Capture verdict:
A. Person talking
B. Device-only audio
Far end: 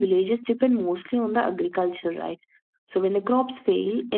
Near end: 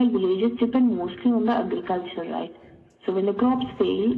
B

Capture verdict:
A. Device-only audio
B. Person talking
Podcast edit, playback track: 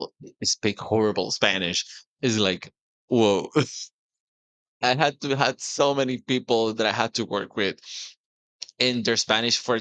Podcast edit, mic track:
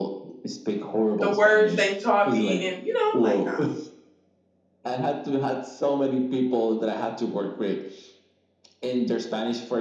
B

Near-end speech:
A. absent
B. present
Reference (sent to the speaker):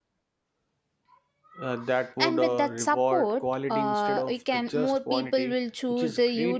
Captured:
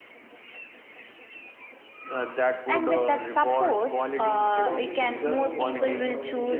B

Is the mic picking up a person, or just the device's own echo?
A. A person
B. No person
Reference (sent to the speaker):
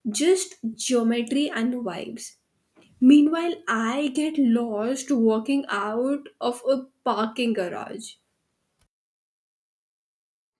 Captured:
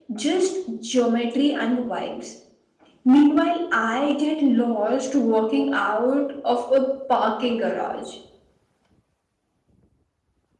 B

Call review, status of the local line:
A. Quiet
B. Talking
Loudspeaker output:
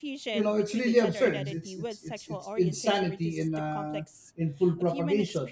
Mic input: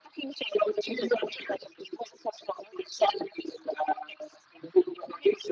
A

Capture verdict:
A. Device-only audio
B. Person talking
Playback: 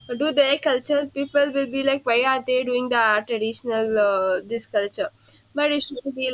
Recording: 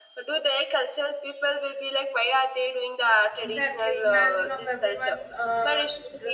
B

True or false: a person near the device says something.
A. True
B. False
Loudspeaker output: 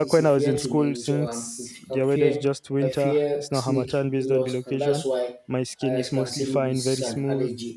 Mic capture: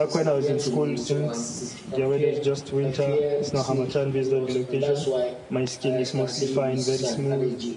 B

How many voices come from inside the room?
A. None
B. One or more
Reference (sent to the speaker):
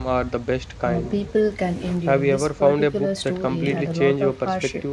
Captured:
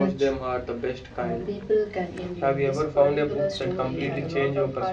A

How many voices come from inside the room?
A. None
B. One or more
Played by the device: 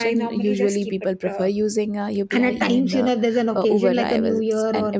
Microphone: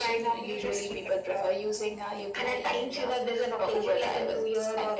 A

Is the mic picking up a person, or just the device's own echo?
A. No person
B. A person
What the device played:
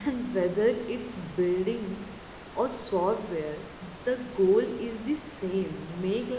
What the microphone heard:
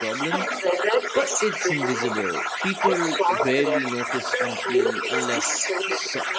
B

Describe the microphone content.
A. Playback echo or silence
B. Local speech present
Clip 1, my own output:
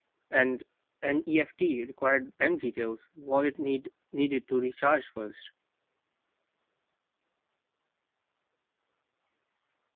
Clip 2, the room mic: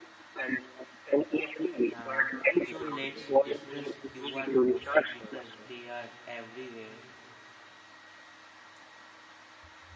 B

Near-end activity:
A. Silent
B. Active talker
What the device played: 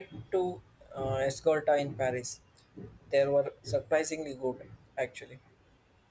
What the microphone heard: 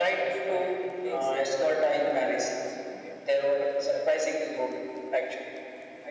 B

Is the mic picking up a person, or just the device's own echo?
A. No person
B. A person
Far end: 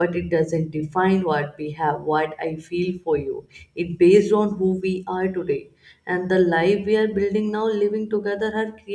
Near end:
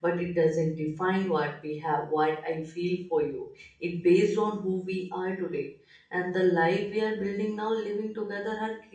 A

